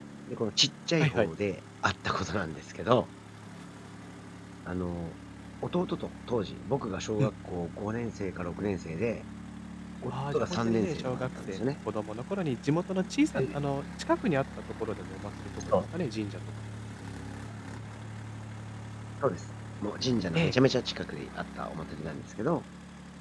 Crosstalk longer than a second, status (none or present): present